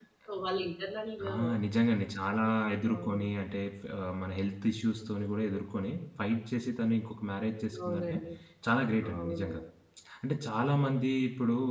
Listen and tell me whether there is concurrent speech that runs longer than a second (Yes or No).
No